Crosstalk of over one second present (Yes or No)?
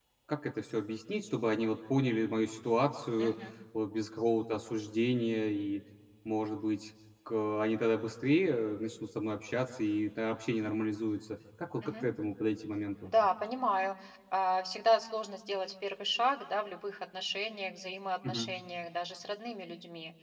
No